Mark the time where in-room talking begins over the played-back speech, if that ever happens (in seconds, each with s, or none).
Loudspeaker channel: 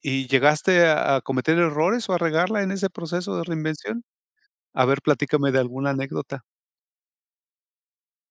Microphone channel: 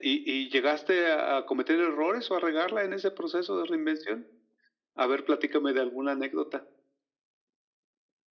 none